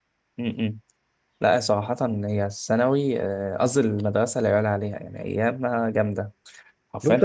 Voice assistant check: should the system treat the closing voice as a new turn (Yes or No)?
Yes